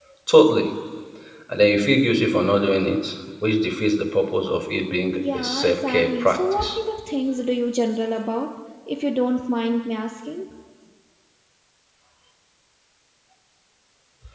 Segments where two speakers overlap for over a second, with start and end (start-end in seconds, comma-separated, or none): 5.3-6.8